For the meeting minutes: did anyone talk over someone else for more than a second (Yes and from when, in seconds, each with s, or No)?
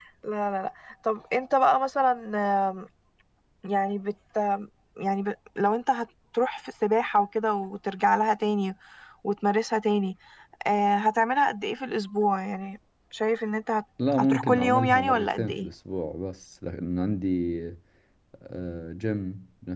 Yes, from 14.0 s